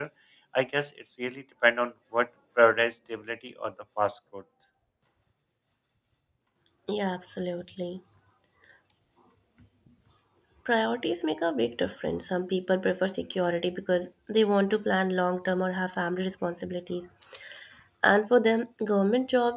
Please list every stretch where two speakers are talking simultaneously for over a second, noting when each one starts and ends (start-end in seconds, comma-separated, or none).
none